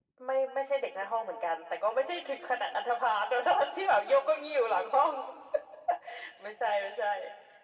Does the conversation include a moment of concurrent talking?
No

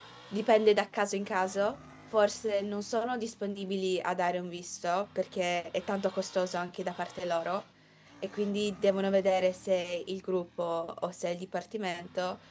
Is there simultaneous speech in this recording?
No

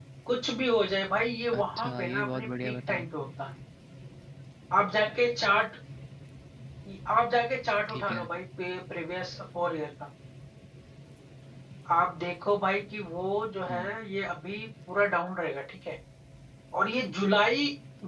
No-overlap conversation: No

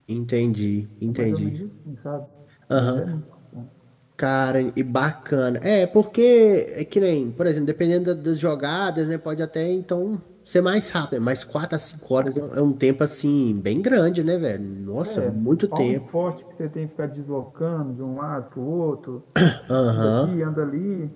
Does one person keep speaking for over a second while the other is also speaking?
No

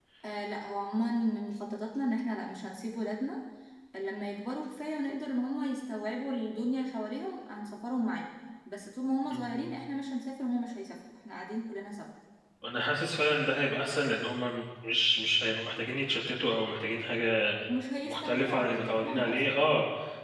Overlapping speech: Yes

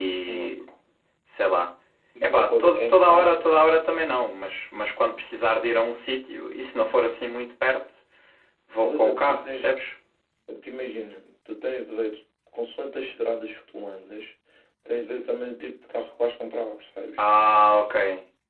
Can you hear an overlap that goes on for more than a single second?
Yes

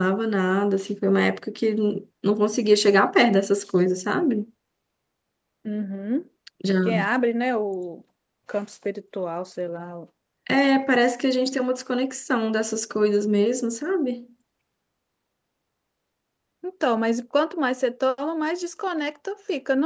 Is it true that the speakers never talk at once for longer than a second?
Yes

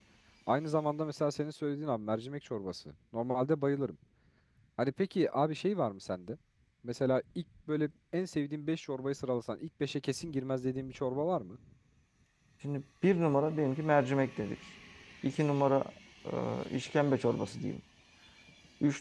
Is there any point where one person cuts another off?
No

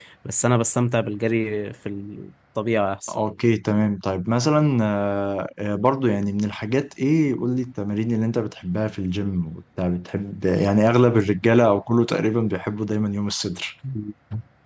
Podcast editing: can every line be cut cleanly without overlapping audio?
Yes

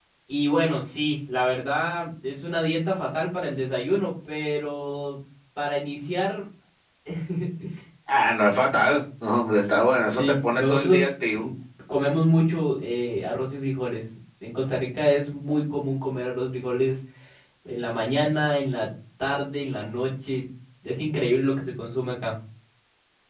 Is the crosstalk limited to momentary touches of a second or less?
No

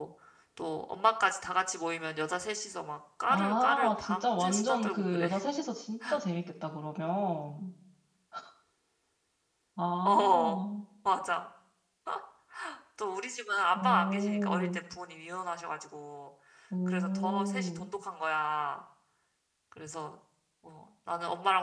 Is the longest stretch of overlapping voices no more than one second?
No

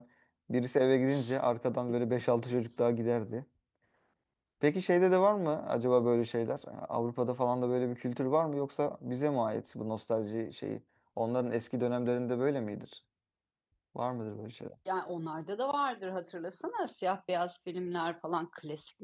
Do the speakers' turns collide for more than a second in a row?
No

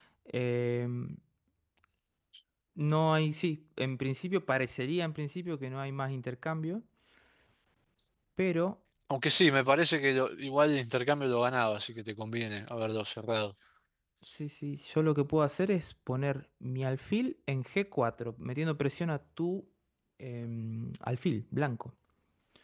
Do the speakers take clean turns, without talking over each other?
Yes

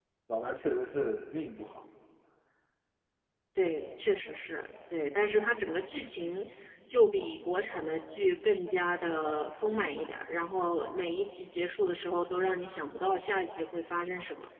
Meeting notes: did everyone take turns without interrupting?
Yes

